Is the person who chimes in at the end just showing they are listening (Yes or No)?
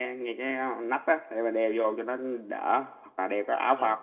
Yes